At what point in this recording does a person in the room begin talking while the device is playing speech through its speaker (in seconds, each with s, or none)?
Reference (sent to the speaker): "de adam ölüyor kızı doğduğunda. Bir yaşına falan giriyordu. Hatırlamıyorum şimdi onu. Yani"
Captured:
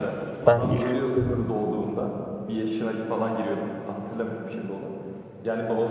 0.5 s